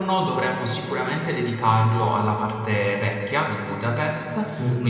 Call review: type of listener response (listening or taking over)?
listening